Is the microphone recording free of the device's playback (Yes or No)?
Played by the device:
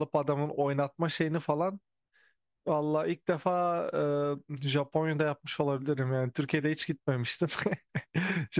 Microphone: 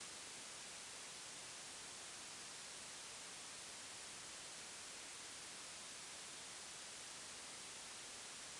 Yes